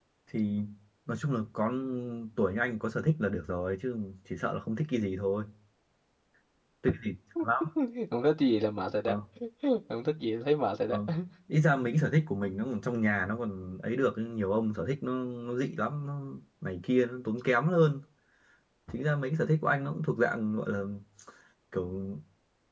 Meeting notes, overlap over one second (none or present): none